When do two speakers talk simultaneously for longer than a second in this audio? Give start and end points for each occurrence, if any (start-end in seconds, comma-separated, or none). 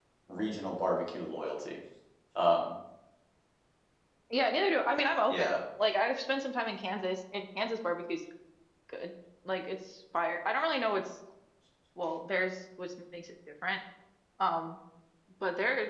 none